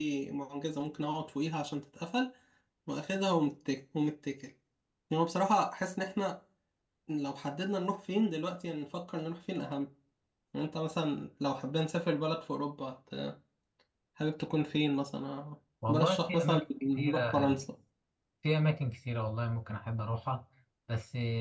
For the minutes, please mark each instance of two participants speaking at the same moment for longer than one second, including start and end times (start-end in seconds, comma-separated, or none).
15.9-17.5